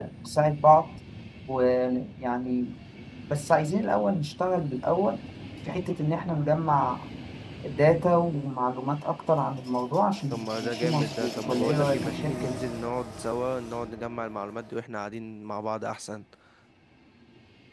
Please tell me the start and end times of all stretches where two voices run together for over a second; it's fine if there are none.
10.3-12.6

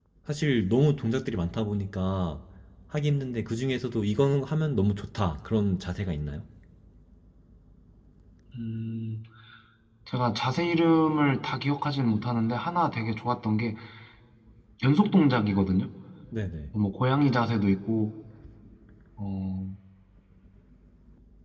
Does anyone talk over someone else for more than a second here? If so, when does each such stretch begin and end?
none

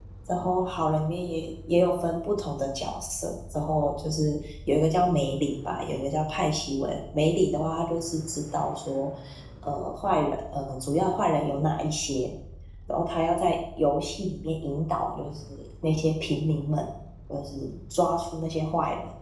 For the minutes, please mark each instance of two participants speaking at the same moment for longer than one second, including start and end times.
none

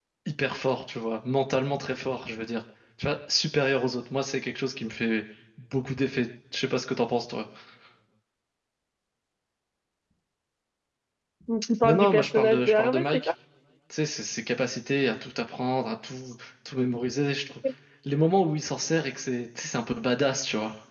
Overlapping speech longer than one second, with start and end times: 11.8-13.3

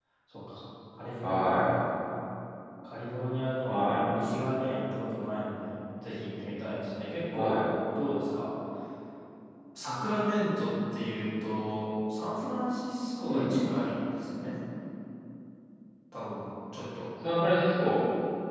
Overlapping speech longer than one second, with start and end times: none

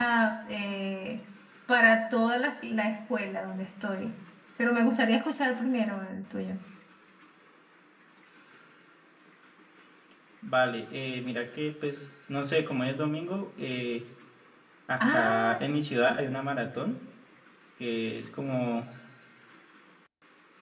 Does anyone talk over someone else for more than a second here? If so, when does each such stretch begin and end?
none

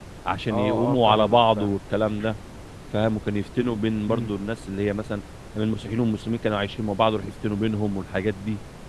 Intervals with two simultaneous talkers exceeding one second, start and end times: 0.5-1.8

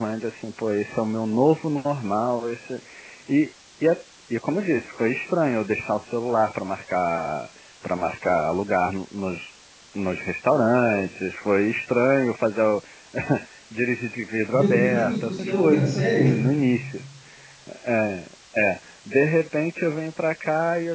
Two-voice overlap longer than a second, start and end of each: 14.5-16.2

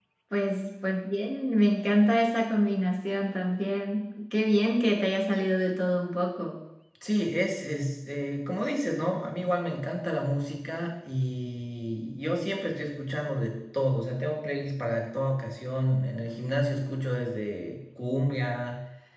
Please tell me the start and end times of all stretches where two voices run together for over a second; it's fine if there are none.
none

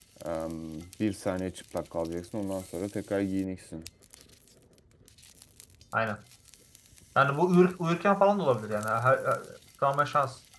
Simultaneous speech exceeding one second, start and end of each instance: none

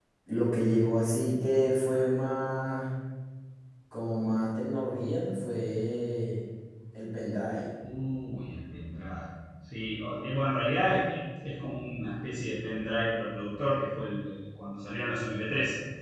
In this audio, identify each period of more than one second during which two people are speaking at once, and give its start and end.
none

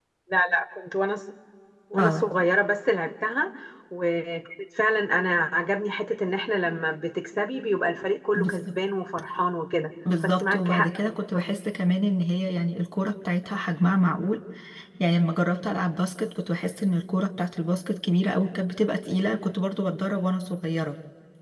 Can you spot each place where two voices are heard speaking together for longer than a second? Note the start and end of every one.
10.2-11.5

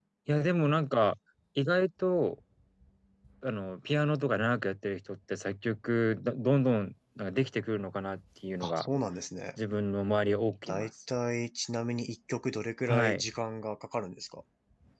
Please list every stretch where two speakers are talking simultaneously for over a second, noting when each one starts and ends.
none

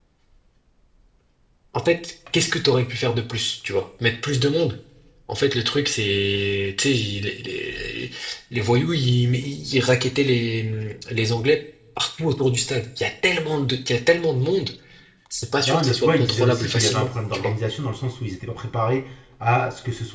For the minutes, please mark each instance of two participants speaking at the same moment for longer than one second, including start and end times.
15.6-17.5

